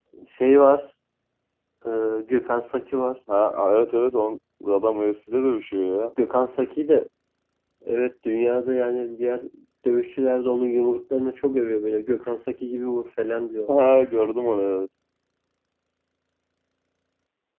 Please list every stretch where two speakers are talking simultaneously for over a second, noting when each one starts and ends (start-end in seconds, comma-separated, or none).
none